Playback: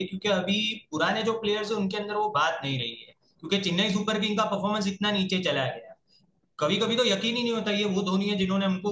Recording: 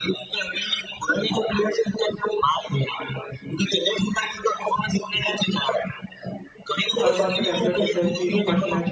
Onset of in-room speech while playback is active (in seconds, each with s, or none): 7.0 s